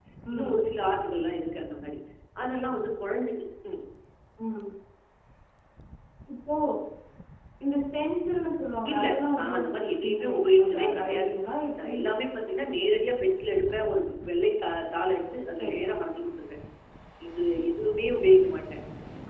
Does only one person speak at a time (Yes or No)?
No